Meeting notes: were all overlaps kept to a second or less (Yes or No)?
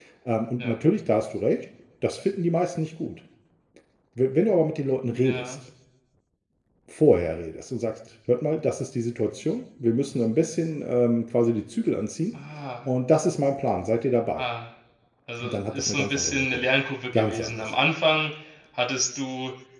No